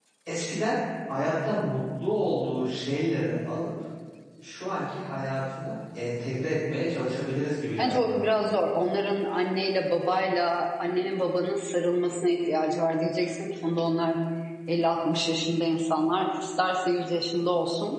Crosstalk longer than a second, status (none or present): none